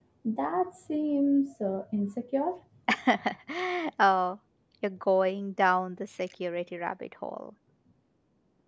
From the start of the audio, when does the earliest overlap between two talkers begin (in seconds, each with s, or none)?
none